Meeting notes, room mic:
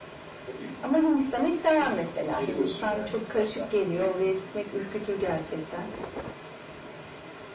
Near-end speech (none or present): present